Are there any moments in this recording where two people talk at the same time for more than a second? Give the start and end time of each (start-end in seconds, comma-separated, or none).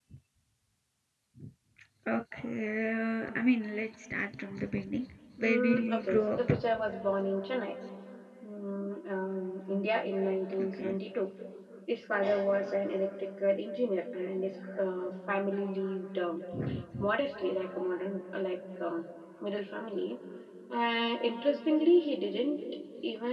5.4-6.6